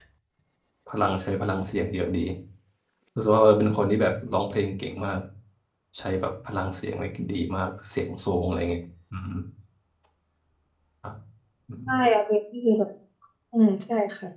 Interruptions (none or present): none